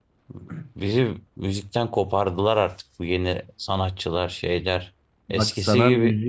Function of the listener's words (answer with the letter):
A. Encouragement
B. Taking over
B